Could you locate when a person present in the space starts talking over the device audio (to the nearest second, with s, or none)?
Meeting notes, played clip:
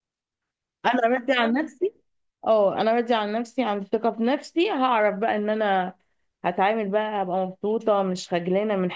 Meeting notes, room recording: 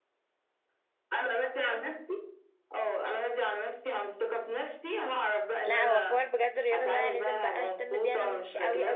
6 s